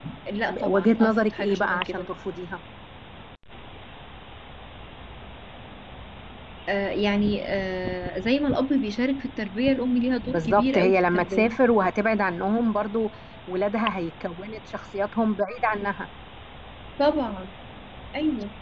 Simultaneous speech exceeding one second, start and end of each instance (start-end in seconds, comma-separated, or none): 0.7-2.1, 10.2-11.4